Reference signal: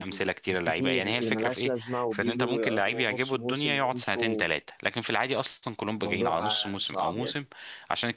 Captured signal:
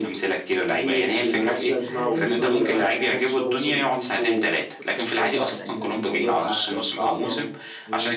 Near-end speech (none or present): present